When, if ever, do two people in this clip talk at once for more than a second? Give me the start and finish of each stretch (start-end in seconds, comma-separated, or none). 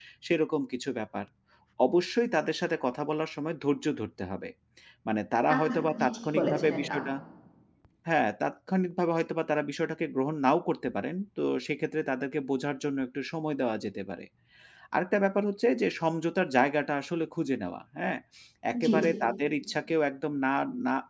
5.5-7.0